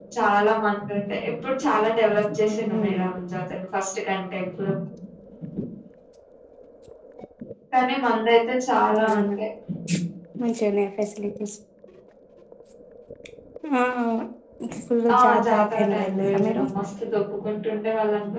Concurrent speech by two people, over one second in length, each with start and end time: 15.2-16.6

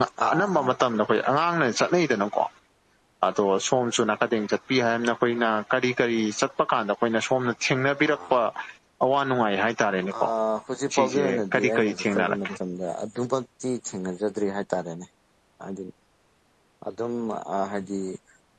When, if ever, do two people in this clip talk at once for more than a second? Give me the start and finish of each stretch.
10.9-12.5

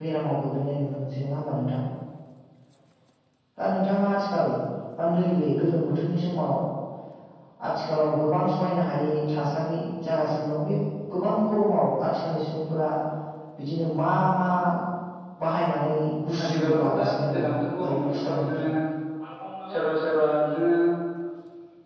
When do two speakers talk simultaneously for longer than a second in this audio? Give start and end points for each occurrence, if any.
16.4-18.6

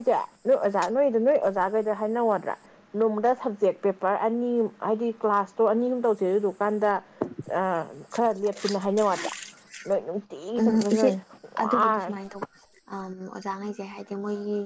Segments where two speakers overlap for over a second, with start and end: none

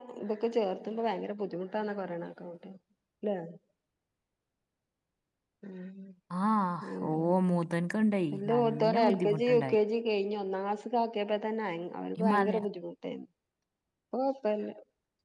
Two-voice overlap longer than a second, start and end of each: 8.4-9.8

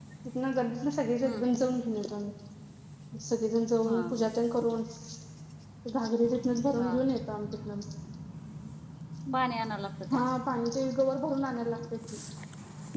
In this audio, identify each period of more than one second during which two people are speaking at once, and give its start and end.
none

